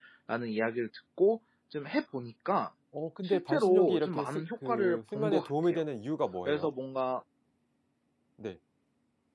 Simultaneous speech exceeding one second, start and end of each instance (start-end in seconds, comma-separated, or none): 3.2-5.8